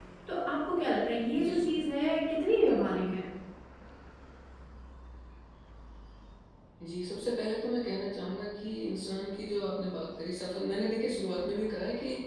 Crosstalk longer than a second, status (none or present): none